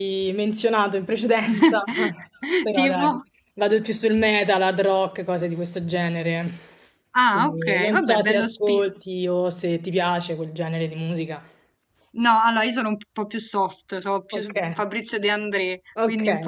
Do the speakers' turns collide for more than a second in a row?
Yes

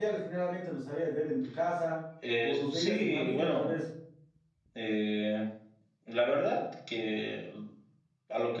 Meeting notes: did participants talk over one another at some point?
Yes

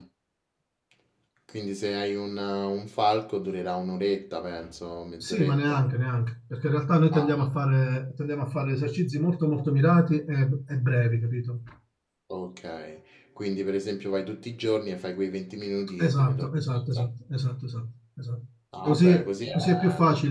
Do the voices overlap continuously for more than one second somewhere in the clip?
Yes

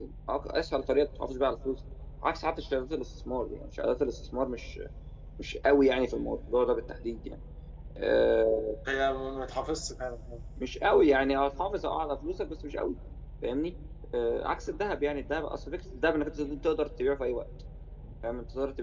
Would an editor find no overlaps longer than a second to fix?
Yes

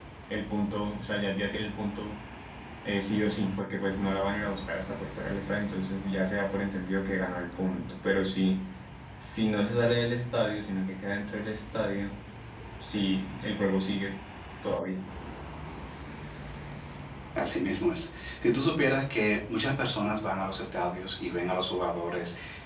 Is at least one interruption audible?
No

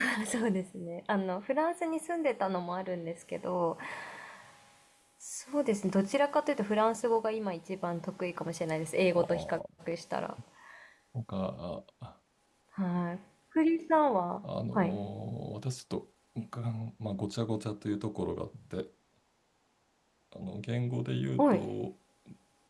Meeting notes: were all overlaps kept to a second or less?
Yes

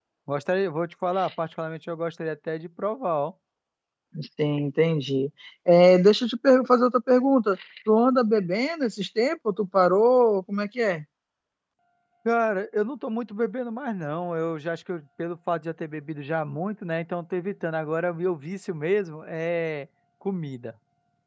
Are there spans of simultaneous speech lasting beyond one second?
No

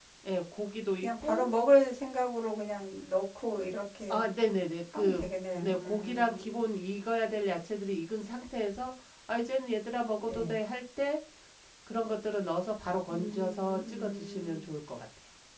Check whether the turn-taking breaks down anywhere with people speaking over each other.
Yes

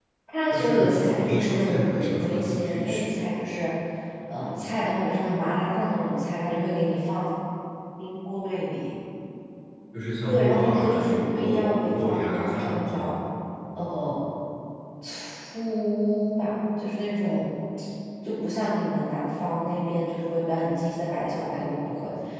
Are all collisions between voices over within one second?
No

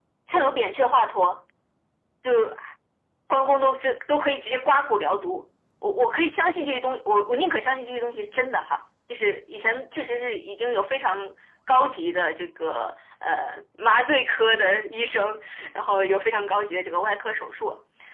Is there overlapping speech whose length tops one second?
No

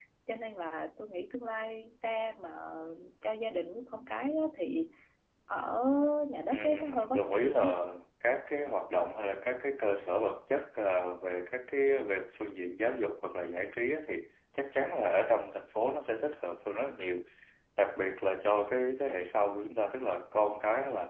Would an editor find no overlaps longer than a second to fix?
No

